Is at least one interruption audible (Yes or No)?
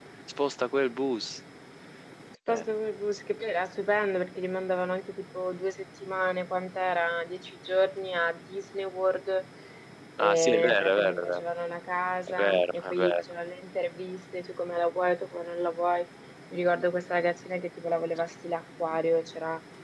Yes